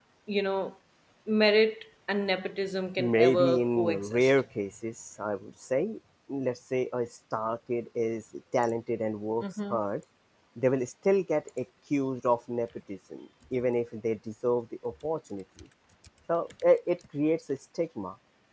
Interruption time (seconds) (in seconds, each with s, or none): 3.0 s